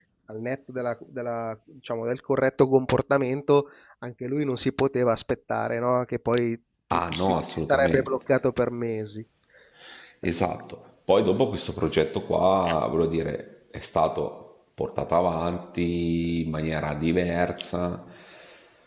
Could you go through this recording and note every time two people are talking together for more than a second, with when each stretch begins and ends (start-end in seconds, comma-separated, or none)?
6.9-8.1